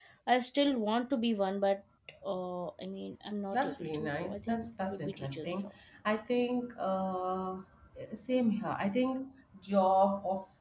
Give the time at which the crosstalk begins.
3.5 s

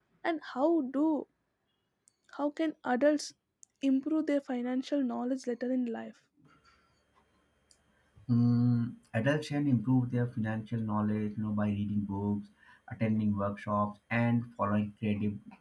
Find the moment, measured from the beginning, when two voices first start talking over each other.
none

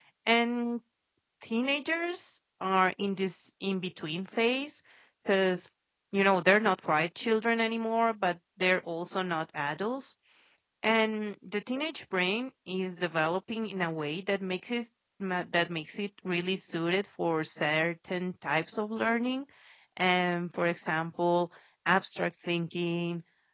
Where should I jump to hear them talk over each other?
none

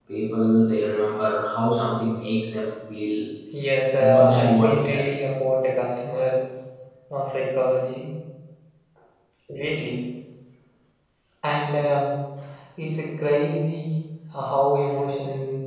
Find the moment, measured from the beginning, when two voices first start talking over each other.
4.0 s

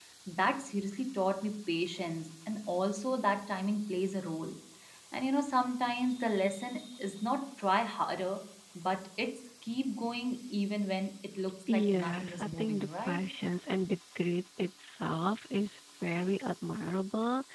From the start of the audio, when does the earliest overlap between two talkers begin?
11.7 s

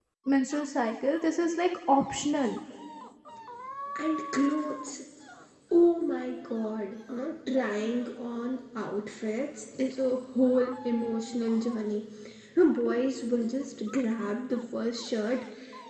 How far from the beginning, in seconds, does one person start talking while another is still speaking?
none

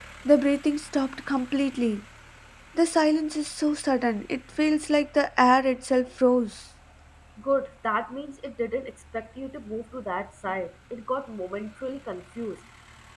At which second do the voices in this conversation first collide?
none

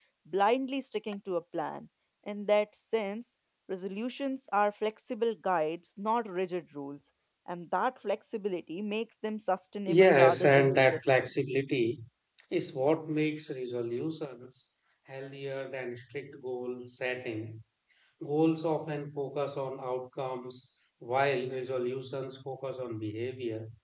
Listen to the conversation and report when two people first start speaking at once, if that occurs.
9.9 s

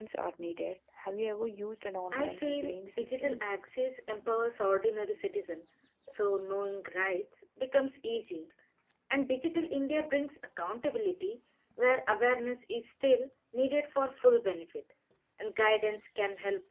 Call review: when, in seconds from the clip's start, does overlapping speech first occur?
2.1 s

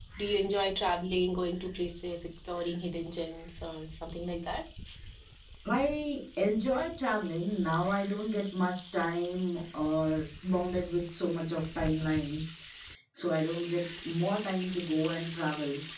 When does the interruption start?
none

